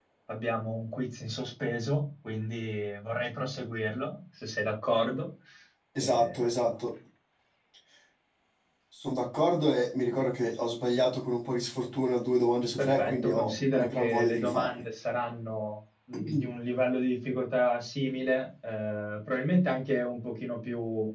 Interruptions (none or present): present